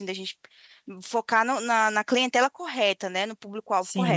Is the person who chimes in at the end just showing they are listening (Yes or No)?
No